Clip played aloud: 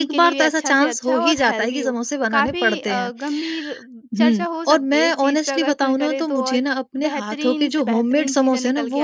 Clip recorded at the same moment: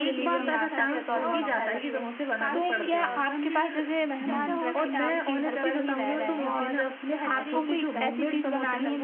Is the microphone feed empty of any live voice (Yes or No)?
No